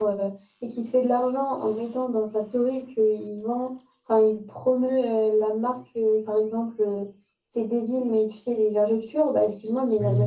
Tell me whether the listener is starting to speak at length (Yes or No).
No